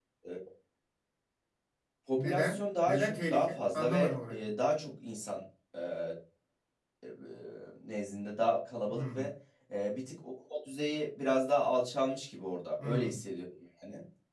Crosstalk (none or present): present